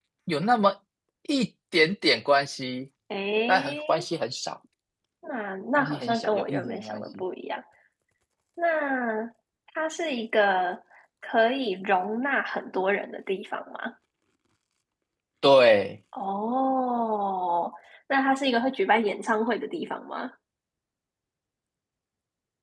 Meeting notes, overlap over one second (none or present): present